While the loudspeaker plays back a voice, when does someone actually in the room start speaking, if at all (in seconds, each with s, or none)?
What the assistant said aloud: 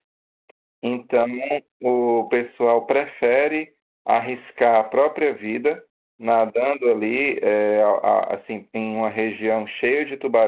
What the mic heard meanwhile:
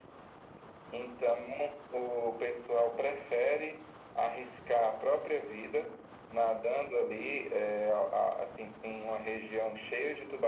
none